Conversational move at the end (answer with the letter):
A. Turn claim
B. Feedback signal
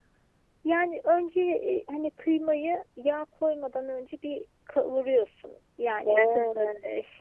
B